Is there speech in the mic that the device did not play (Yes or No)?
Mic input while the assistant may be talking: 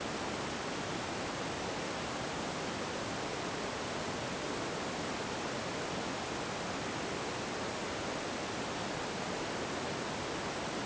No